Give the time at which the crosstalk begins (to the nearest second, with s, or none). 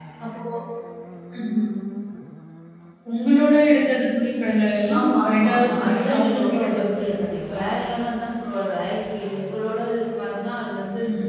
5 s